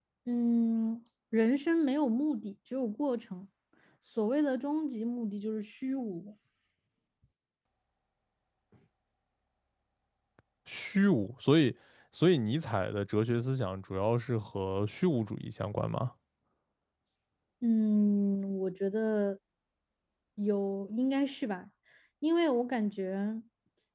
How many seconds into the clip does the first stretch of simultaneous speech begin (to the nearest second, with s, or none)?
none